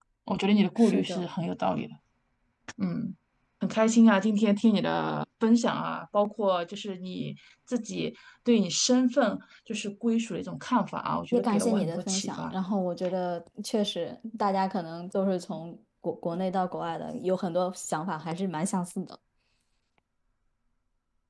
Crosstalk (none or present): present